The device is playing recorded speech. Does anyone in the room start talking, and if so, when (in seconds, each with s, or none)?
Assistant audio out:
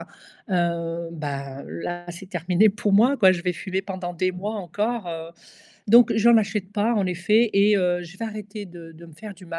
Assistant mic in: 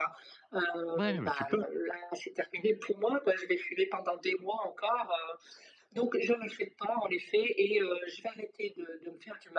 1.0 s